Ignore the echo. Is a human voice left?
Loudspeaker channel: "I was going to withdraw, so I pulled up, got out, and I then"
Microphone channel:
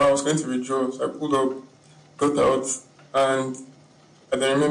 No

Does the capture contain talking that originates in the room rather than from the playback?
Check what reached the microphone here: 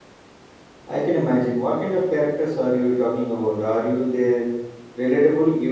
Yes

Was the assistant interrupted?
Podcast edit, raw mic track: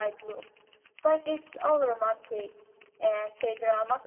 No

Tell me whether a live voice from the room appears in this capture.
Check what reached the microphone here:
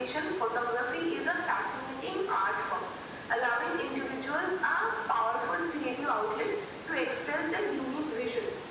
No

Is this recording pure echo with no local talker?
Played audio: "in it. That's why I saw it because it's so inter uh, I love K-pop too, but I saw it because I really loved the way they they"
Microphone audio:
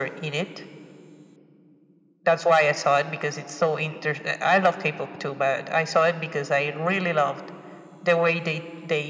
Yes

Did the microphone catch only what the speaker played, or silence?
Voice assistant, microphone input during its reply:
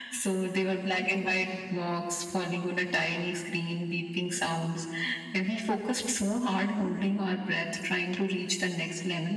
Yes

